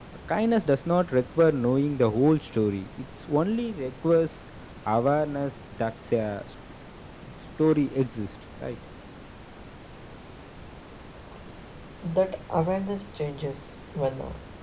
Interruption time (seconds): none

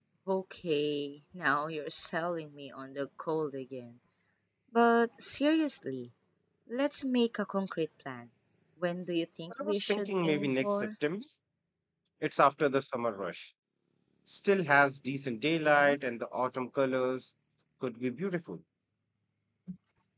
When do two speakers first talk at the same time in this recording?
10 s

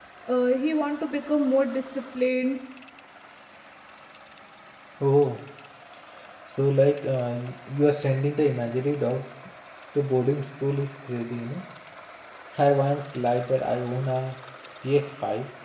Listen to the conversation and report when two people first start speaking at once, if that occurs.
none

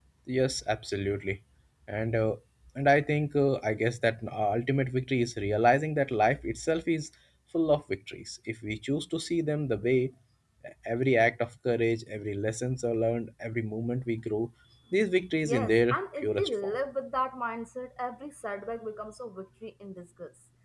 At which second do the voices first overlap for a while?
15 s

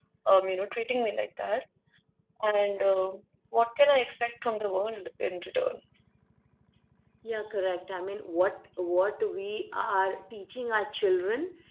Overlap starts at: none

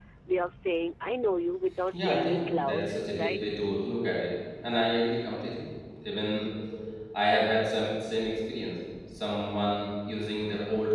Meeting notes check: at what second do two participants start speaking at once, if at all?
2 s

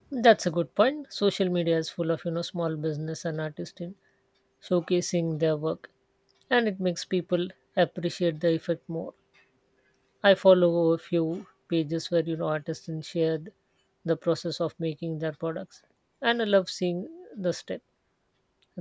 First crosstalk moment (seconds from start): none

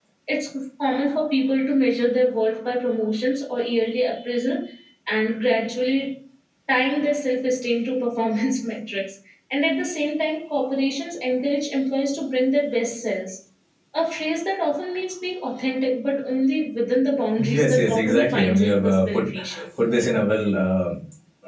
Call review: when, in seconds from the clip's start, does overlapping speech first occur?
17 s

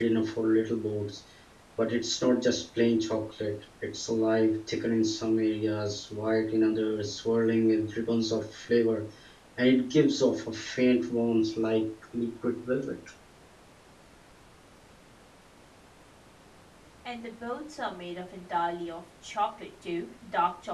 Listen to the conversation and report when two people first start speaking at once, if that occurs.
none

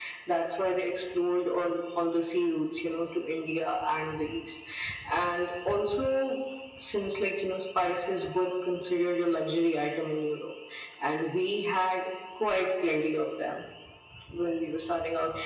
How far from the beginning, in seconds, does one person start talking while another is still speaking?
none

